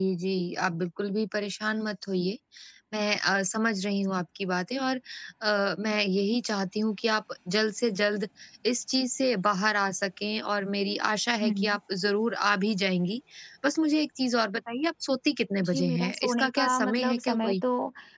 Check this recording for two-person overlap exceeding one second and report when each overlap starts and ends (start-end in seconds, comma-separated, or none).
15.6-17.6